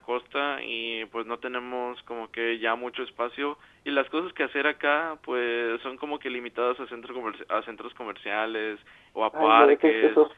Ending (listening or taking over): taking over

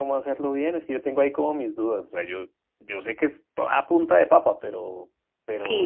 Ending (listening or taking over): taking over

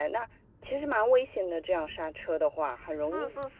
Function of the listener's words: taking over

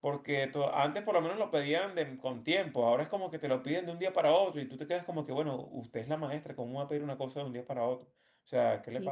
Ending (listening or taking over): taking over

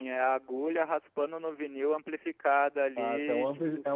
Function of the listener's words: taking over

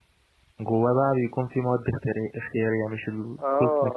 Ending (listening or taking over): taking over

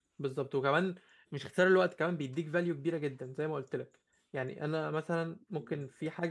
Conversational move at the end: listening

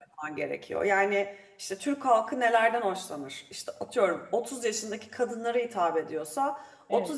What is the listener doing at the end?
listening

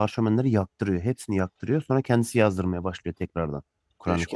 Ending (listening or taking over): taking over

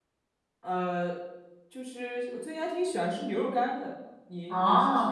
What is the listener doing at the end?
taking over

